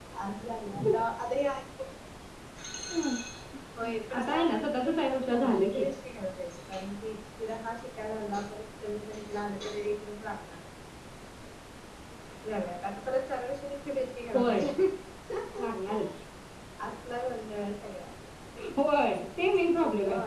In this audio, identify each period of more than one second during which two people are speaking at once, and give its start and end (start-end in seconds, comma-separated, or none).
4.3-5.8